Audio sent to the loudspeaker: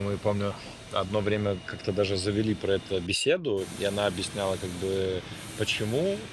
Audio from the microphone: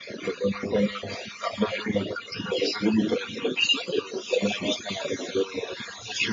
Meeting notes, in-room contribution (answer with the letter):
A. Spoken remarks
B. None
B